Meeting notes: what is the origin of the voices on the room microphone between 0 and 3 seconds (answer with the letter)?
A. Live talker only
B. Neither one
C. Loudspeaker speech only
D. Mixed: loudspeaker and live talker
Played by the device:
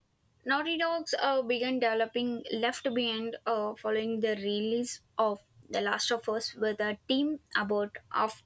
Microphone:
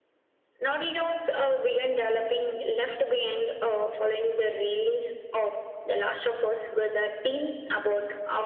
C